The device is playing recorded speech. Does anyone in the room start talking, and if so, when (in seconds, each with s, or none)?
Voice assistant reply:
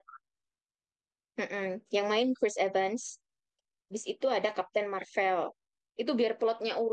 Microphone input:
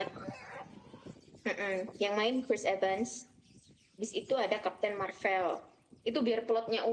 none